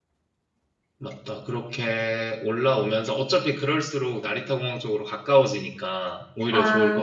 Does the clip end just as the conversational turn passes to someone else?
Yes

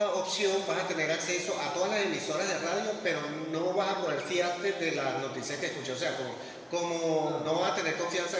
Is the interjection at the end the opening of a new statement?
No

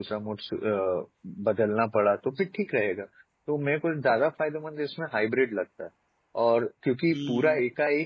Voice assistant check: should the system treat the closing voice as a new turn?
No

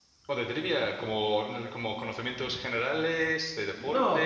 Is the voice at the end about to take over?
Yes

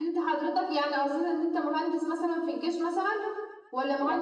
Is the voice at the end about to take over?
No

